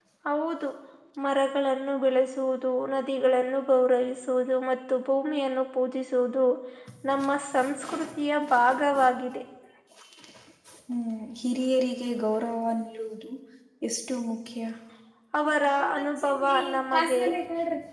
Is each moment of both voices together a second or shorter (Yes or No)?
No